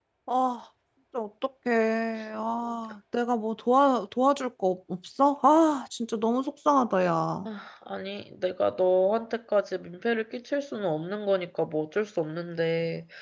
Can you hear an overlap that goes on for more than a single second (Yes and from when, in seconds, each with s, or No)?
No